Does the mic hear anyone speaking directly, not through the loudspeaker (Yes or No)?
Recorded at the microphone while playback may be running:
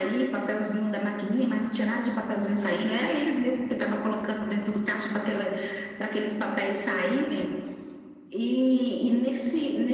No